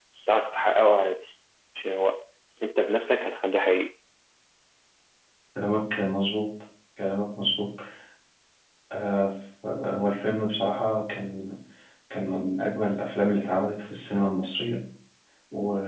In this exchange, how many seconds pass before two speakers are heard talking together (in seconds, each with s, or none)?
none